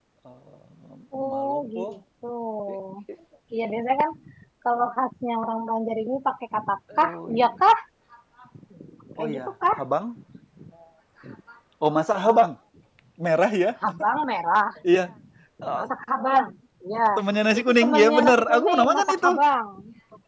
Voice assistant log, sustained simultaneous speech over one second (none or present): present